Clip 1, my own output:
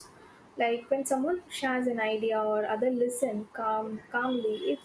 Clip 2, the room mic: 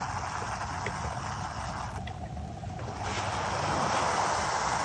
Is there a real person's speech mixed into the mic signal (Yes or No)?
No